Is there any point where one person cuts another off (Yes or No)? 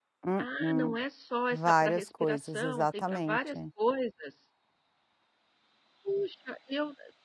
Yes